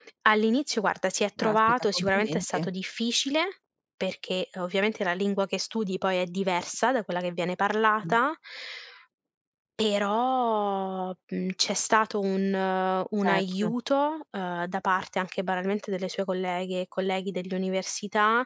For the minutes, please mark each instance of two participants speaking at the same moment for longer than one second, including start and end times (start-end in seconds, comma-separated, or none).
1.4-2.7